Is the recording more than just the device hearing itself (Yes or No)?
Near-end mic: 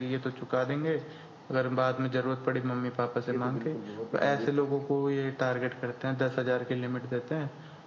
Yes